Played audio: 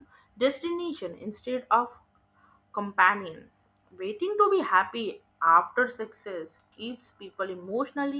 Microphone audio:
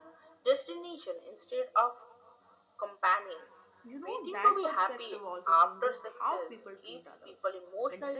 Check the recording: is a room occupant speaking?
Yes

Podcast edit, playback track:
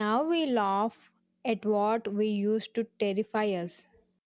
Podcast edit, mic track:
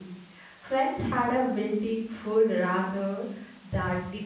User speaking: Yes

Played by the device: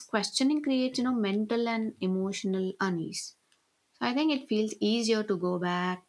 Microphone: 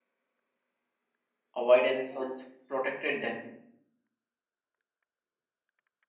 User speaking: Yes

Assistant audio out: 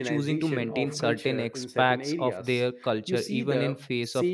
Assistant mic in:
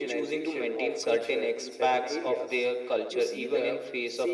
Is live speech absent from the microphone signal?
Yes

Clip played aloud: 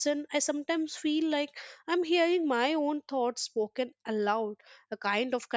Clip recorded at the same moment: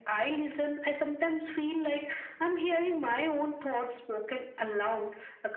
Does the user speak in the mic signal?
No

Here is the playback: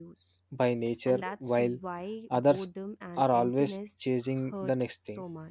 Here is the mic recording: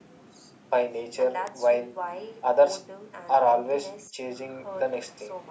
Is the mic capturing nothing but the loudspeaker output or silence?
Yes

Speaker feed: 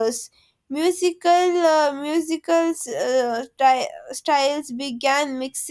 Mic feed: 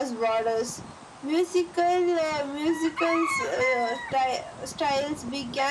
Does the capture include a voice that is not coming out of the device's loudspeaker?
No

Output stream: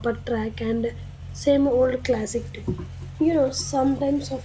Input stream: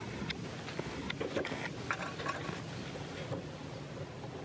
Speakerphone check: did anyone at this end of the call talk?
No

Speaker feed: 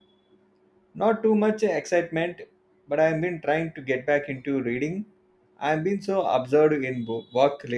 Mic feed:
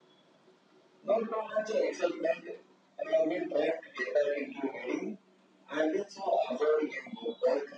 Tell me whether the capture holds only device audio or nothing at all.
Yes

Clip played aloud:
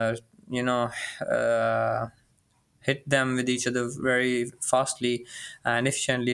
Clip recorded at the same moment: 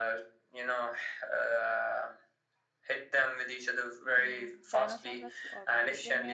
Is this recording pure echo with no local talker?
No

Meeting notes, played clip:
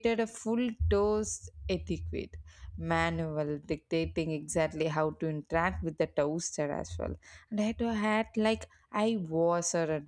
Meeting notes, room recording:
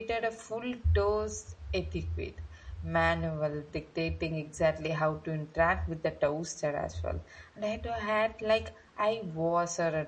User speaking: No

